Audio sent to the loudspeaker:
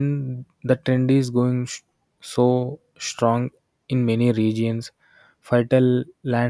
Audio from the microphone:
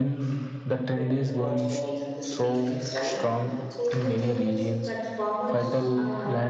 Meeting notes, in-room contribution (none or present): present